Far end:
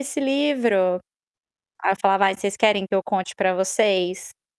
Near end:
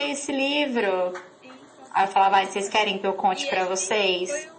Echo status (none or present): present